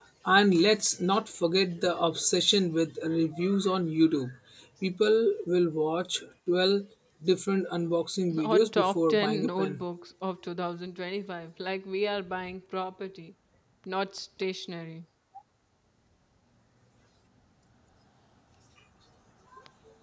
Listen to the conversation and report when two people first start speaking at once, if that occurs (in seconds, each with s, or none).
8.4 s